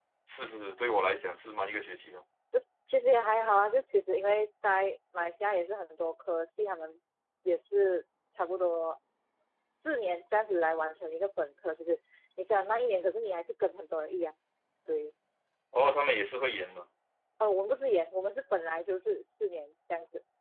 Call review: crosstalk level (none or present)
none